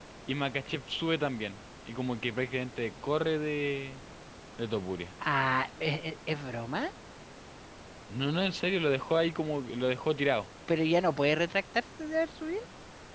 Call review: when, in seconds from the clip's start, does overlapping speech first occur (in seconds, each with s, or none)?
none